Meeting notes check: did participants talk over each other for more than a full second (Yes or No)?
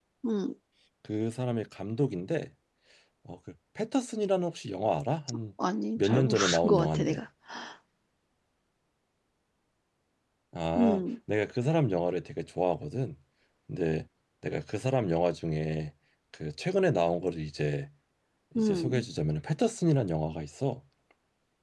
Yes